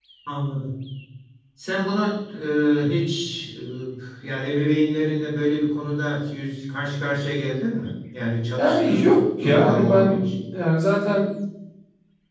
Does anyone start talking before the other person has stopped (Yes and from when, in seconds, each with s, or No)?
Yes, from 8.6 s